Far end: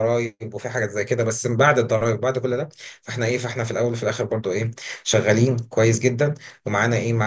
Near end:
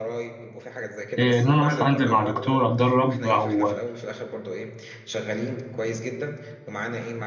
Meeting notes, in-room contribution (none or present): present